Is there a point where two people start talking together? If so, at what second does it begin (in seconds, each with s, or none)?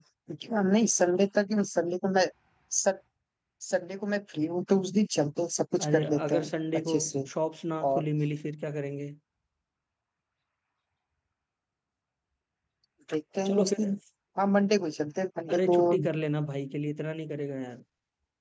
5.8 s